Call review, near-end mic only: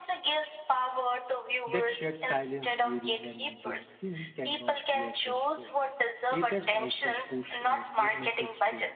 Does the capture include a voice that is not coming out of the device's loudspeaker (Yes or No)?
Yes